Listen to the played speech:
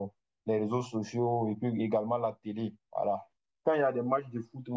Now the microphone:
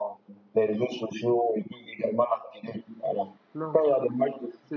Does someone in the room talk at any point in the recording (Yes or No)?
Yes